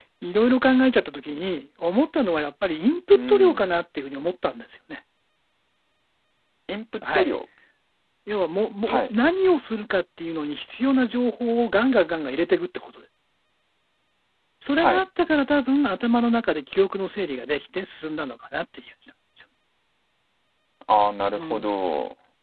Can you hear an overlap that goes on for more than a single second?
No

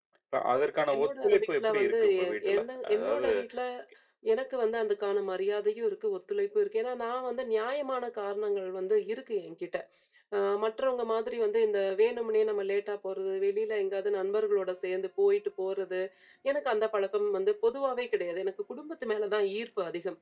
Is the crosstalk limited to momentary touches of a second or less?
No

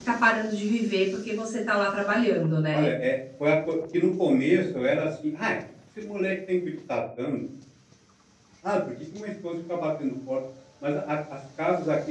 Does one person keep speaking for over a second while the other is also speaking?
No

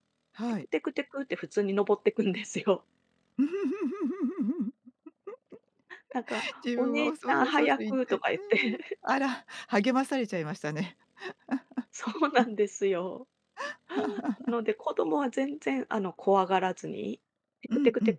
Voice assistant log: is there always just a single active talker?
No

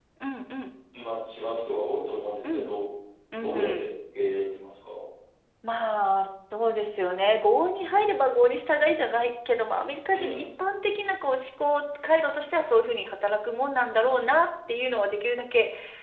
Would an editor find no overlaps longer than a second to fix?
Yes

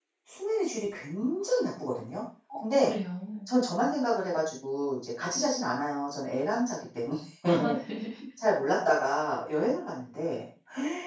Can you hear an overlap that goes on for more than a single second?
No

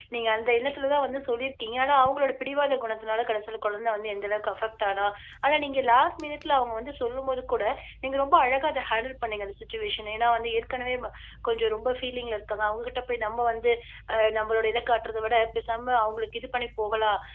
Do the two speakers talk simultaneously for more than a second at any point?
No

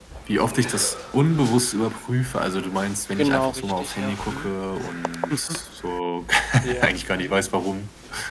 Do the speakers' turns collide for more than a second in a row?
Yes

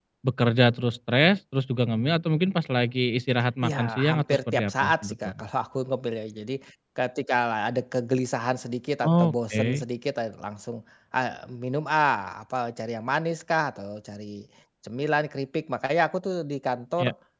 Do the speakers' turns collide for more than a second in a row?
Yes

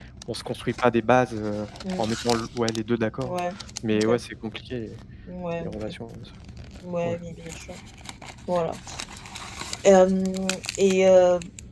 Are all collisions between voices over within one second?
Yes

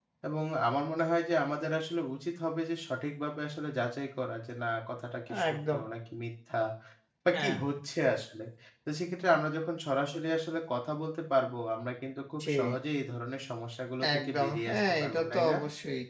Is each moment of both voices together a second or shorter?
No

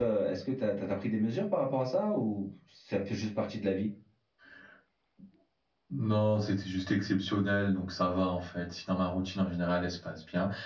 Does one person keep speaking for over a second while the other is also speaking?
No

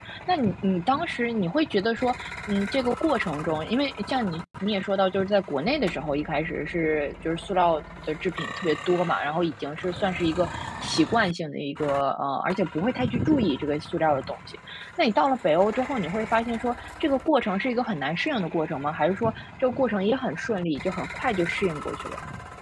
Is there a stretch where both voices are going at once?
No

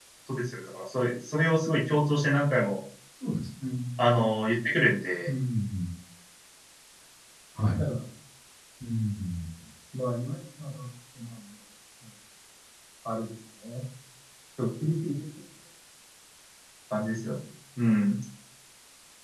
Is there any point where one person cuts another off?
No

